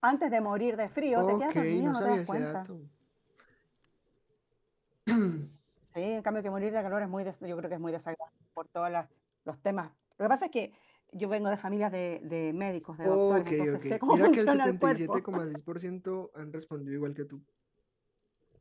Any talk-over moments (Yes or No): Yes